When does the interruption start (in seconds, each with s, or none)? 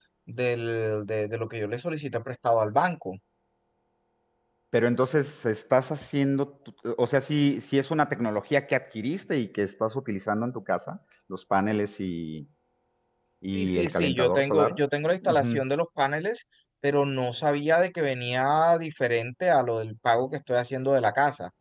13.5 s